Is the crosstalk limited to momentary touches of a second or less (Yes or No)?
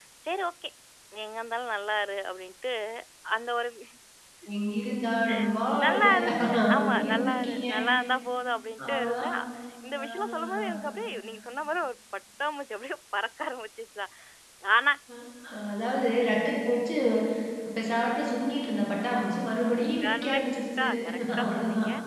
No